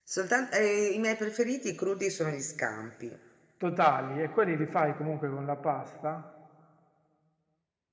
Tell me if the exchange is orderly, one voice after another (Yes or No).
Yes